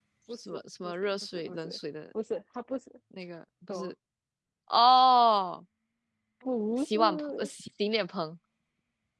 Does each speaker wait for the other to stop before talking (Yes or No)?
No